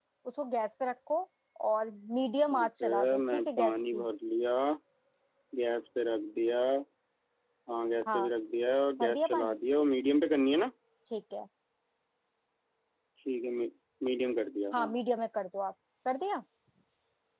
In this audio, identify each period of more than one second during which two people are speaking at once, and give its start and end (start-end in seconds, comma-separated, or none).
2.5-4.0